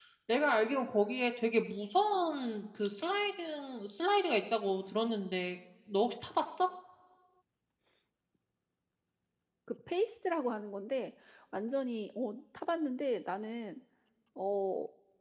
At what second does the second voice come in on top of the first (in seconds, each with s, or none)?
none